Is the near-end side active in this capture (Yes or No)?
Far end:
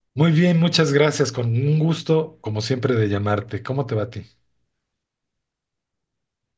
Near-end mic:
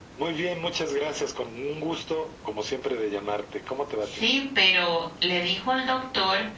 Yes